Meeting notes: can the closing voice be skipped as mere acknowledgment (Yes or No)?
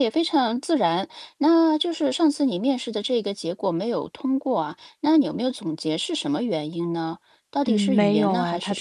No